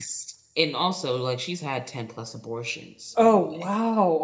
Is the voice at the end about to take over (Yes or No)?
Yes